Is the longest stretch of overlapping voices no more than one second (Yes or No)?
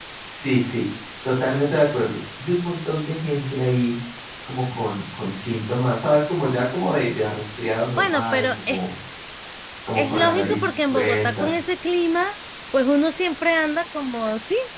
No